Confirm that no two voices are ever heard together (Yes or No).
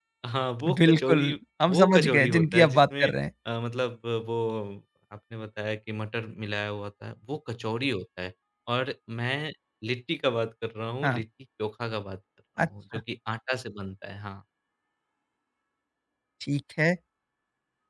No